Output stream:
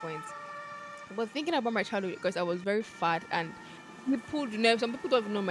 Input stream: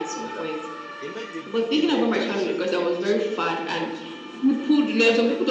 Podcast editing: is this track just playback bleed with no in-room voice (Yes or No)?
No